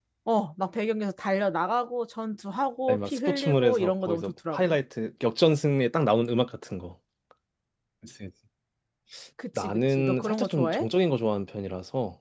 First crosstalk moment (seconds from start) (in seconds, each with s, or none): 2.9 s